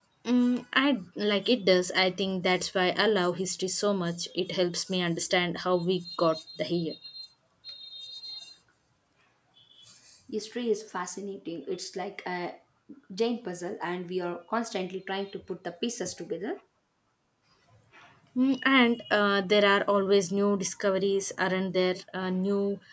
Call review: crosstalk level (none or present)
none